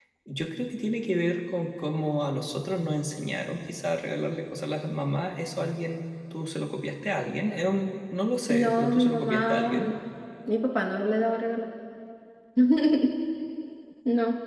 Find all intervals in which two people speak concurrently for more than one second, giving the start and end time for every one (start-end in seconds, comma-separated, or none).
8.5-9.9